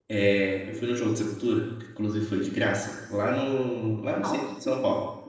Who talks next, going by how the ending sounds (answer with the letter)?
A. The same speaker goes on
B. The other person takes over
A